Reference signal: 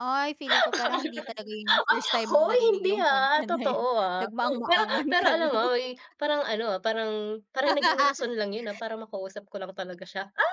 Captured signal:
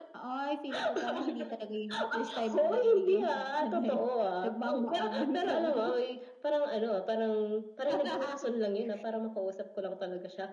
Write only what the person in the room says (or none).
none